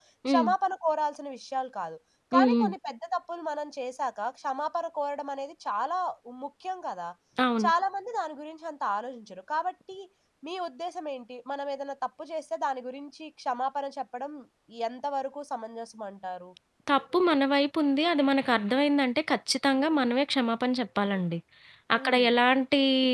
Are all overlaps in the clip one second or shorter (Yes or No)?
Yes